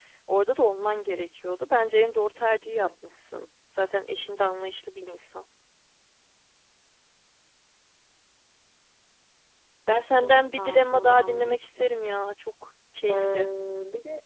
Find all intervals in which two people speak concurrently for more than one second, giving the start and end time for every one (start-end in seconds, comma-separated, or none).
10.2-11.9